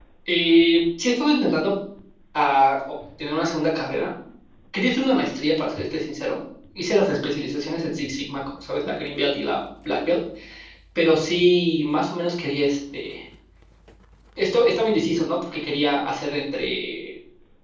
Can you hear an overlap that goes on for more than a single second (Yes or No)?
No